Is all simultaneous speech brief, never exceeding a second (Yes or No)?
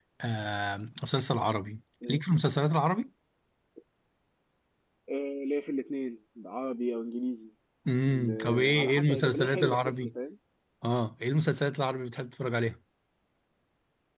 No